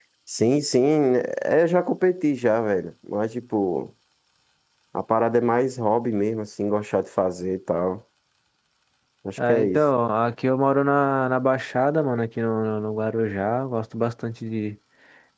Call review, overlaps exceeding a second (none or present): none